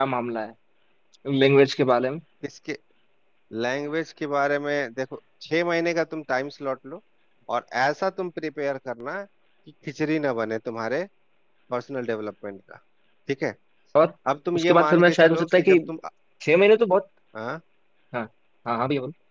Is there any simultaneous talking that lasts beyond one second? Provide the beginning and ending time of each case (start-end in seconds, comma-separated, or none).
14.5-15.8